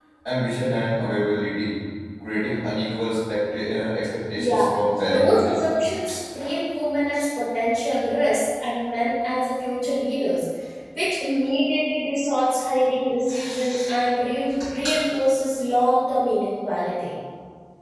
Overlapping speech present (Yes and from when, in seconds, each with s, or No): Yes, from 4.3 s